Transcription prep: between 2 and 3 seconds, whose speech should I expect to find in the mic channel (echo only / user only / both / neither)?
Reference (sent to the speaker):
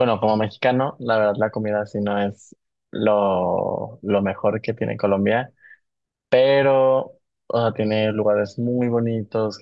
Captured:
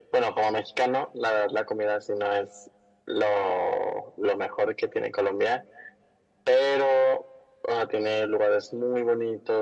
echo only